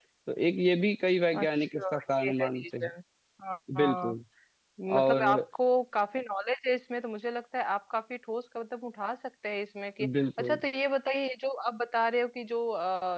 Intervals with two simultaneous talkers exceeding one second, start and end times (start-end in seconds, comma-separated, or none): 1.4-2.9